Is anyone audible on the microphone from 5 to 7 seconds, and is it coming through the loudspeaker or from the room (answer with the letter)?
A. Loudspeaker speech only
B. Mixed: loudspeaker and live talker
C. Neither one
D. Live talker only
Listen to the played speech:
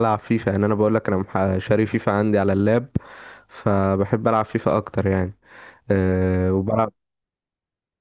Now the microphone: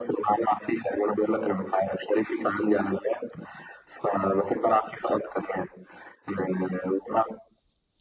A